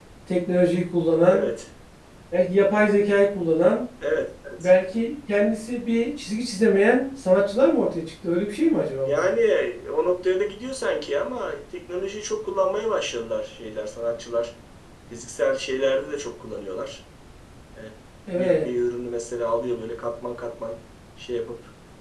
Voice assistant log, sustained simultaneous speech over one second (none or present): none